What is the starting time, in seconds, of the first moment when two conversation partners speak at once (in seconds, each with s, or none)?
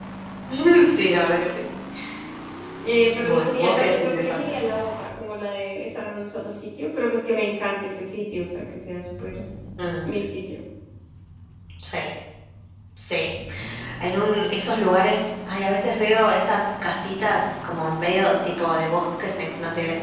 3.2 s